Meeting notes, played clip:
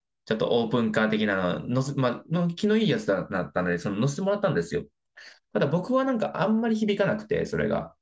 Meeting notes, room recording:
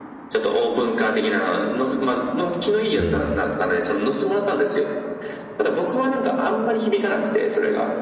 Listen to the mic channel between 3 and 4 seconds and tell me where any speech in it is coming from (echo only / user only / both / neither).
both